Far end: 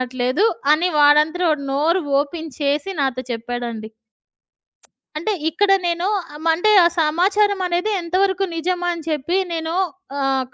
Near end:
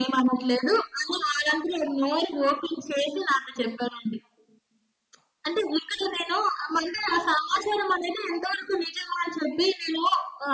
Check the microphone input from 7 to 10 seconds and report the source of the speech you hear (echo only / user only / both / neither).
echo only